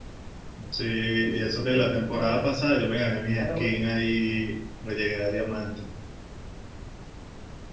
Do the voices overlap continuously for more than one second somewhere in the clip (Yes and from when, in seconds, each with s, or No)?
Yes, from 1.2 s